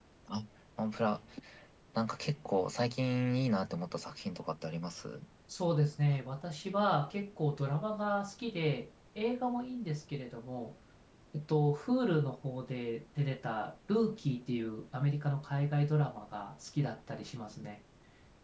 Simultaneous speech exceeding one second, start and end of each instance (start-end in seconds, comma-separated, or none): none